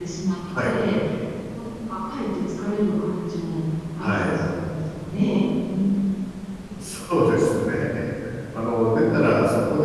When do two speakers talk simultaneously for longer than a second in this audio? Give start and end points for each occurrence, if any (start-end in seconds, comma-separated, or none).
none